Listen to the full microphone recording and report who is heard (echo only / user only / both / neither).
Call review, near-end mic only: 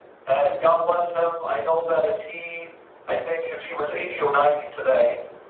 echo only